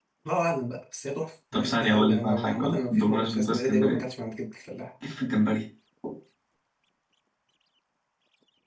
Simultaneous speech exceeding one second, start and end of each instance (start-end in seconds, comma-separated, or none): 1.5-4.0